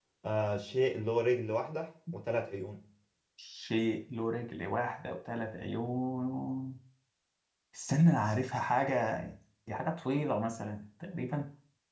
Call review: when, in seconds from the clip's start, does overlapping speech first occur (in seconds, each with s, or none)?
none